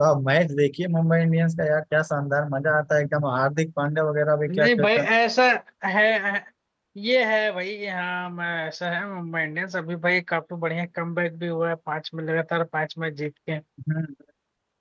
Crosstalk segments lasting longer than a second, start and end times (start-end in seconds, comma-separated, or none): none